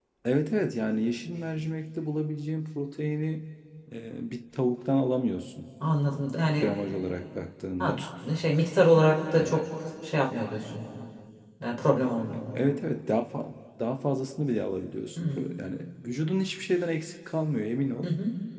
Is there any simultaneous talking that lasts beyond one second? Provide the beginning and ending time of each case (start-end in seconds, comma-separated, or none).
none